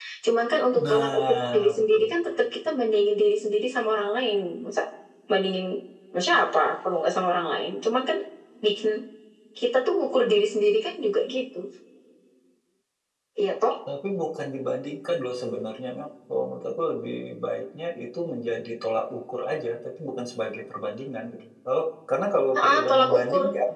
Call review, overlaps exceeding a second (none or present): present